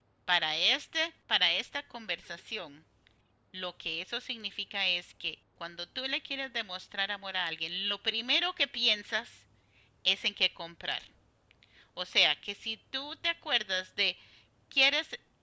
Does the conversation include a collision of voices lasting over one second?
No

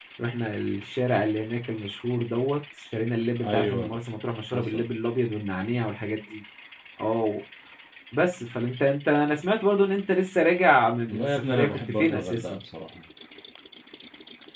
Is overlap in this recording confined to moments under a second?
No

